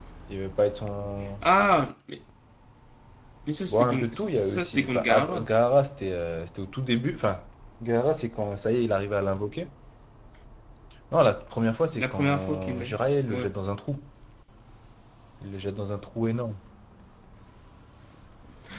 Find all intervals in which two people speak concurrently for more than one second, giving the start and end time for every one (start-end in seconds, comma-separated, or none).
3.7-5.5, 12.0-13.5